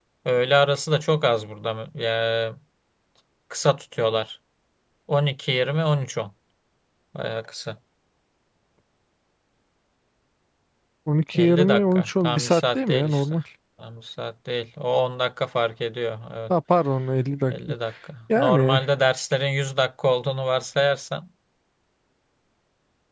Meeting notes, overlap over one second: present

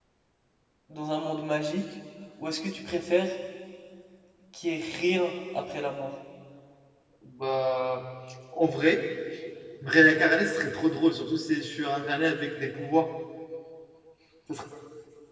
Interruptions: none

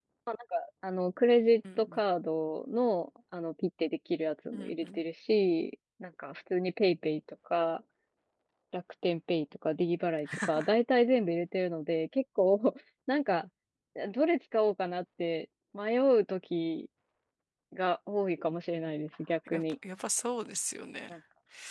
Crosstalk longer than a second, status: none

